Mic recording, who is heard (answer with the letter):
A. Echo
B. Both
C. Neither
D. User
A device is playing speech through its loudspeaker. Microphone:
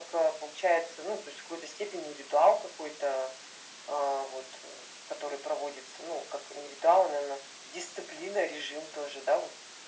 A